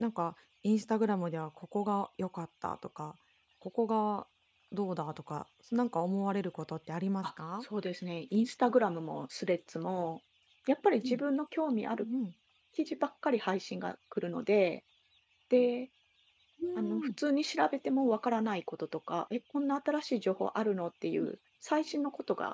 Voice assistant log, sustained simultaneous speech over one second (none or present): none